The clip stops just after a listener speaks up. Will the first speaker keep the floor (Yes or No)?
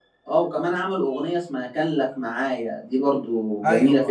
No